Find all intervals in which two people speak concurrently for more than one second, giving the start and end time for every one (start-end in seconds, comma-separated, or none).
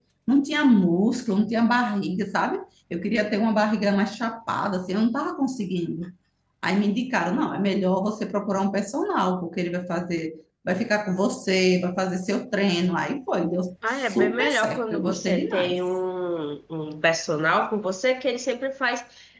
13.9-15.8